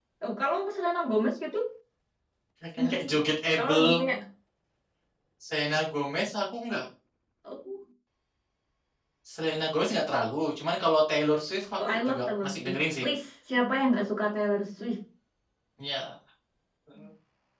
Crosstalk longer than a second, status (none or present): present